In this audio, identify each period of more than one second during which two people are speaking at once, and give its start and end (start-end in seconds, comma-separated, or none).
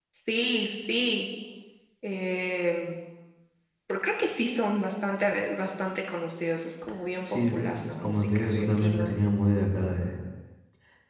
7.2-9.1